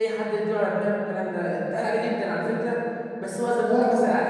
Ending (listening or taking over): listening